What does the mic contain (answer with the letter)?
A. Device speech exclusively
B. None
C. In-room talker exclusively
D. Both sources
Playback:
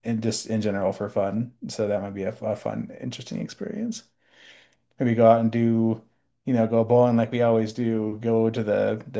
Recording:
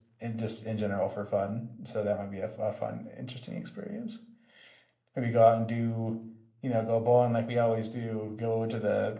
A